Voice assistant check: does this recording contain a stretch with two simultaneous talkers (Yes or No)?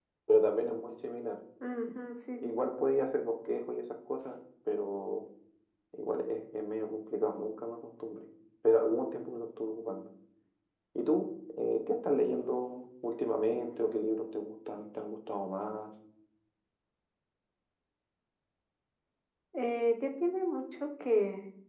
No